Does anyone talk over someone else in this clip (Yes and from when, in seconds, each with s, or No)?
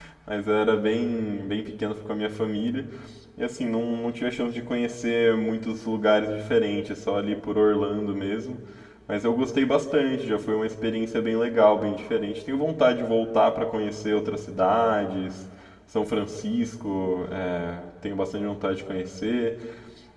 No